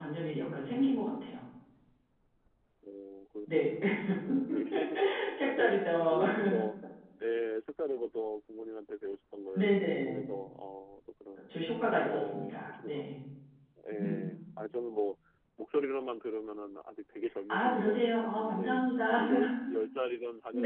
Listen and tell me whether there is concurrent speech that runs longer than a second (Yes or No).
Yes